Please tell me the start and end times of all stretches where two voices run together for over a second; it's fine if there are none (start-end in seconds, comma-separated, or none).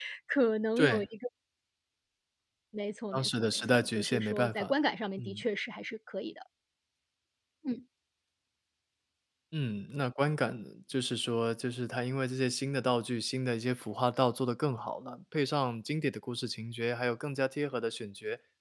3.1-4.7